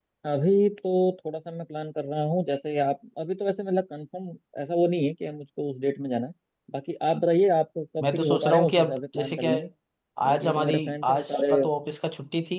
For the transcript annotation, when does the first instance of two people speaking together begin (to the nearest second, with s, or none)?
8 s